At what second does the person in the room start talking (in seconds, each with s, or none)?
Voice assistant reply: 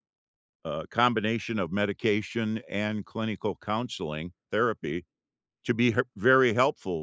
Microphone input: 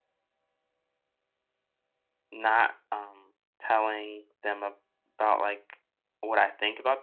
2.3 s